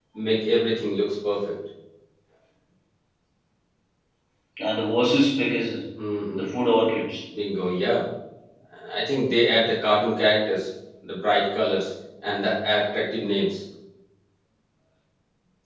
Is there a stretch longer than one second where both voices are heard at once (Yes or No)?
No